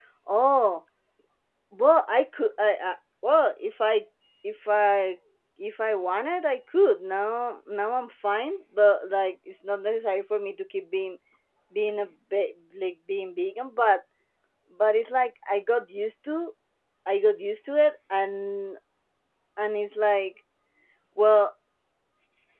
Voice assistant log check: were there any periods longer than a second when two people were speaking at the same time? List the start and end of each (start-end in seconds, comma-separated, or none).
none